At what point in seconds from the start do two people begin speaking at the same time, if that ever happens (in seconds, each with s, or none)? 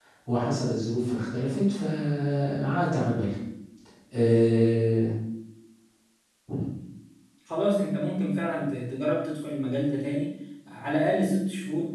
none